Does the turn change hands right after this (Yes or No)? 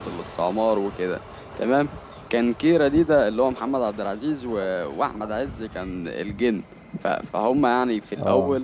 No